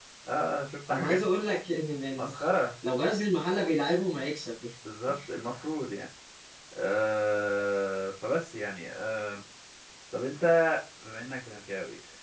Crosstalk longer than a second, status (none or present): none